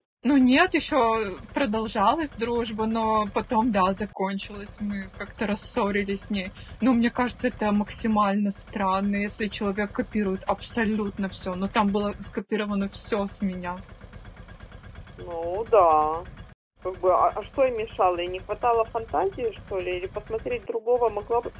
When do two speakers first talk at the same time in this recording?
none

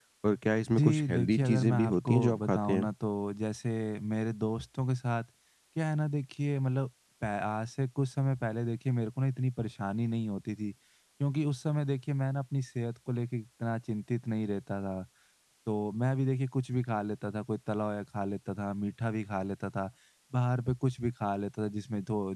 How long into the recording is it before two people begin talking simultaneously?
0.8 s

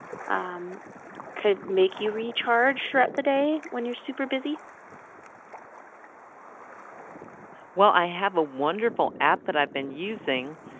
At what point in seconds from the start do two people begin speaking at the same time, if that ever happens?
none

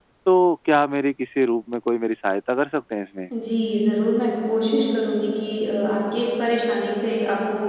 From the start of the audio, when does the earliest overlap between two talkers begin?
none

